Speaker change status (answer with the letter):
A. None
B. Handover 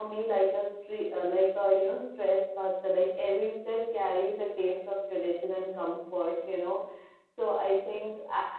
A